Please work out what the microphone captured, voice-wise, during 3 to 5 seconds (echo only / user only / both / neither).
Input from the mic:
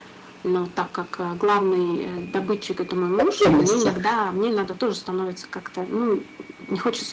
both